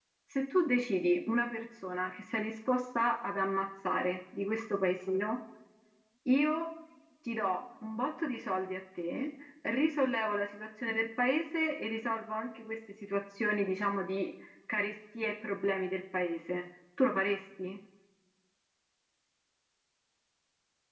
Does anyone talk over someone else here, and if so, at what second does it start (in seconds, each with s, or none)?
none